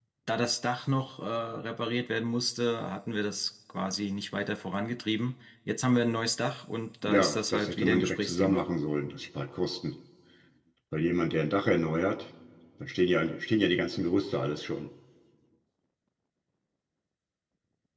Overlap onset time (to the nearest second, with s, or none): 7 s